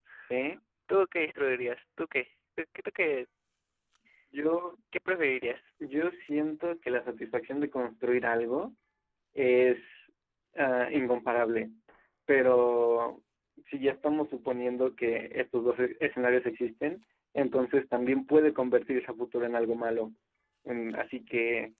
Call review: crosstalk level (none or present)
none